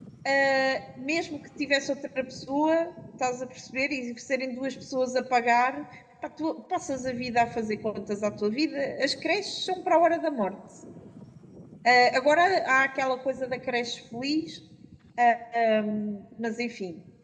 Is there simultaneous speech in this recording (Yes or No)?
No